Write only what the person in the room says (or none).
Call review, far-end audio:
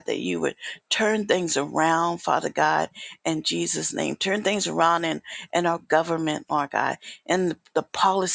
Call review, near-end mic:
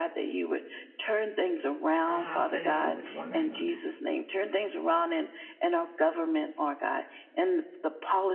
and have fellowship with one another.